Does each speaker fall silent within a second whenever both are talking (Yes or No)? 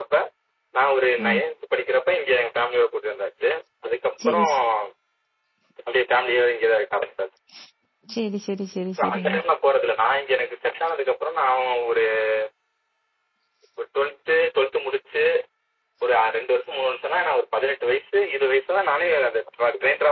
Yes